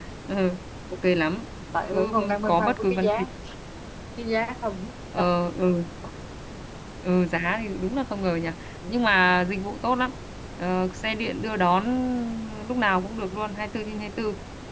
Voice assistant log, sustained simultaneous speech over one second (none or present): present